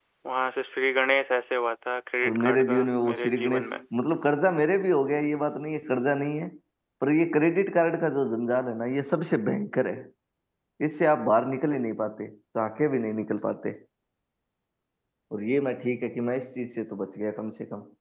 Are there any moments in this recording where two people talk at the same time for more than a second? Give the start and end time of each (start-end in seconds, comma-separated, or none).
2.3-3.8